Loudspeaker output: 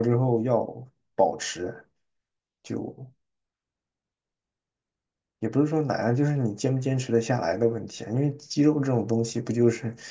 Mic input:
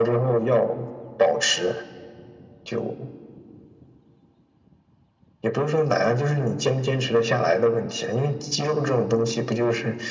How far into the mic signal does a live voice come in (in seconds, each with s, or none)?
none